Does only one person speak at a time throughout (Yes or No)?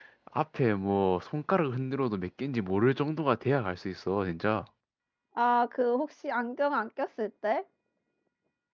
Yes